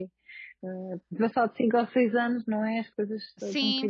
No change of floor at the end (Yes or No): No